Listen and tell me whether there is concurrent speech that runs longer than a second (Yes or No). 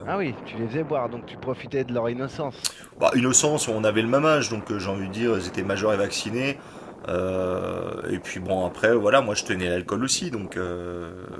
No